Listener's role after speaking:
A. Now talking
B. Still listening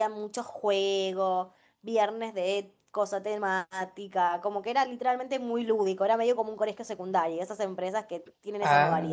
A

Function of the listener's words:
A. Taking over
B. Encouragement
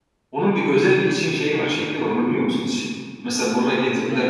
B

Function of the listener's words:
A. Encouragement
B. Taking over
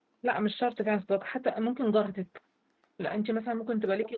A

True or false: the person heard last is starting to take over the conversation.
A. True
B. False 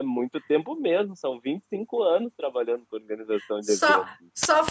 A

